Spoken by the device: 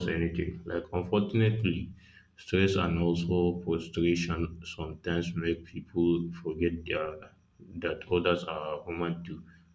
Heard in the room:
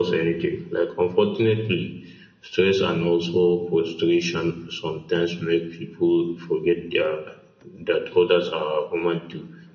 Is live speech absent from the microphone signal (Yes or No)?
Yes